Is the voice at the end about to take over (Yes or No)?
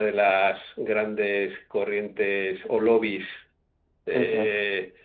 No